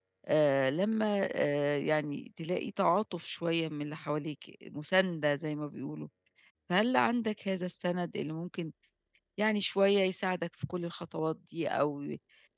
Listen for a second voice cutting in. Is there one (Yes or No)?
No